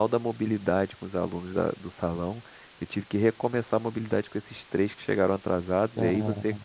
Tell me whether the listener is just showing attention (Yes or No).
Yes